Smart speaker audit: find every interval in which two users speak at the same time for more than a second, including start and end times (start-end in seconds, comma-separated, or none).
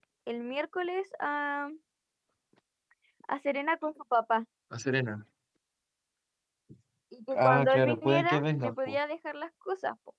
7.3-9.0